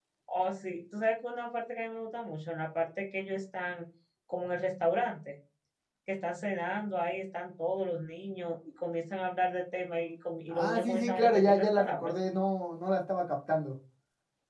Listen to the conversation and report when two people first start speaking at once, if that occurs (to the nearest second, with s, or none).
11 s